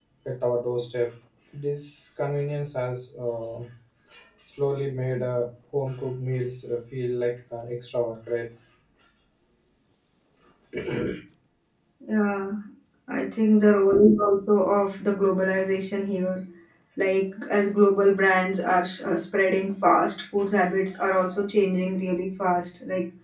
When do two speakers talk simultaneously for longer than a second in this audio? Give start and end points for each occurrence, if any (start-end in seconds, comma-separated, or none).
none